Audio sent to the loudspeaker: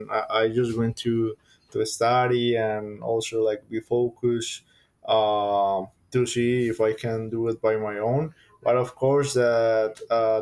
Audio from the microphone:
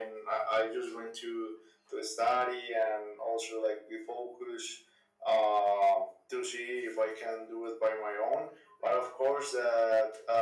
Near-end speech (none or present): none